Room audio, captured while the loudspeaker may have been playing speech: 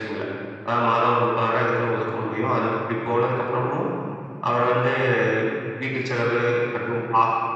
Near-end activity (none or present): none